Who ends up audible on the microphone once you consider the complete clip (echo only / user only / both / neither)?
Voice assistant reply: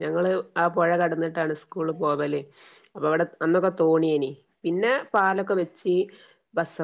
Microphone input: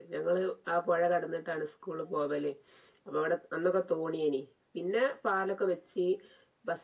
echo only